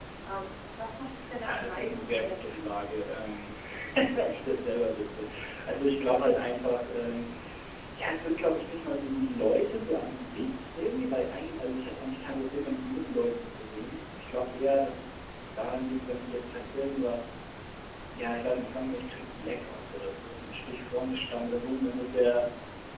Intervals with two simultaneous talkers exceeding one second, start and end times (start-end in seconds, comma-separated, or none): 1.4-2.8